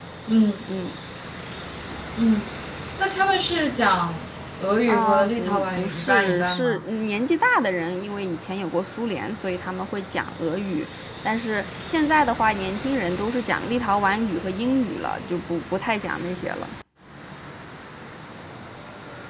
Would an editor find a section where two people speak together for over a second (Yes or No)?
Yes